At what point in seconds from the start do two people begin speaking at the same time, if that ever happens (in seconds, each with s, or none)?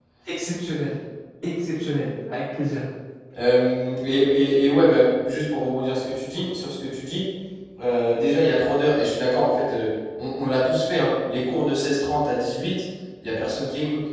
none